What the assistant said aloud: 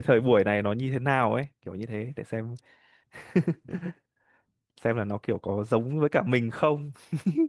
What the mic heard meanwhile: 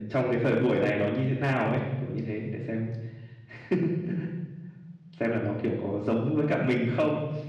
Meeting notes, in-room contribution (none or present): none